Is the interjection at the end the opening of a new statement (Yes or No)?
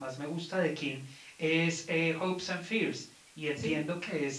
No